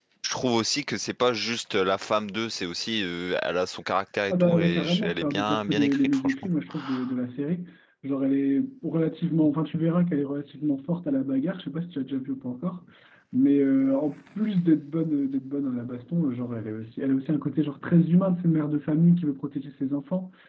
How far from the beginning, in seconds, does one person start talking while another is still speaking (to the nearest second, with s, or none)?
4 s